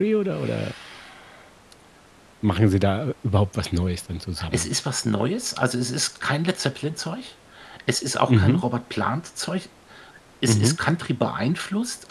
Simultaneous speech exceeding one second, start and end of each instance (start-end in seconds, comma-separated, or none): none